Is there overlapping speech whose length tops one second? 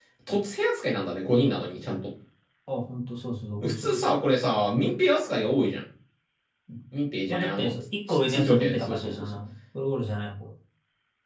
Yes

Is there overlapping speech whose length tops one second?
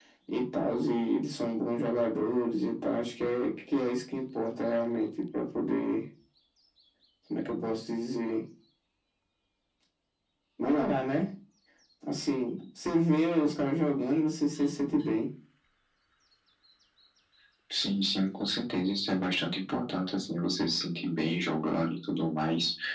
No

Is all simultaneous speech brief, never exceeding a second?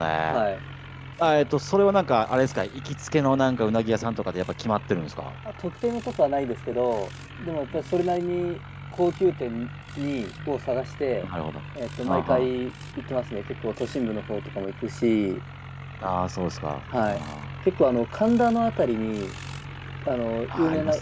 Yes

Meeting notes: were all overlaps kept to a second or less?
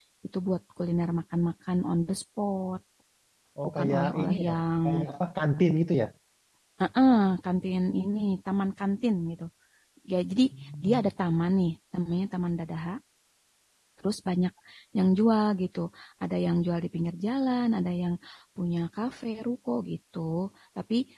No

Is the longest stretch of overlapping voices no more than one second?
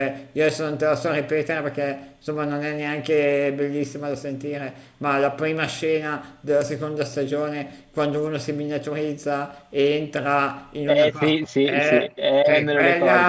No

